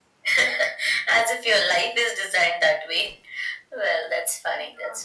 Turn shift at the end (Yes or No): No